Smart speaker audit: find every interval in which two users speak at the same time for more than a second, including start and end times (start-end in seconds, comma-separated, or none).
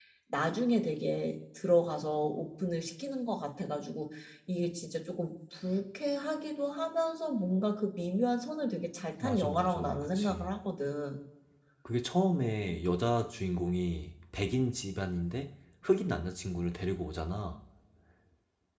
9.2-10.5